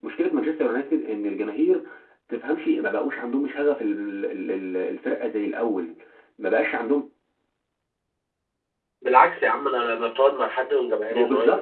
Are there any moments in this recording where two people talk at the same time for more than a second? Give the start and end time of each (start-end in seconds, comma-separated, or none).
none